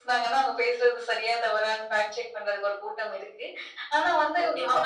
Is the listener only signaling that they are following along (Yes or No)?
Yes